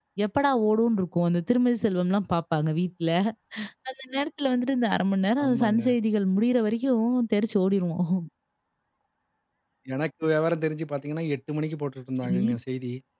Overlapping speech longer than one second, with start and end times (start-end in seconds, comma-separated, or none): none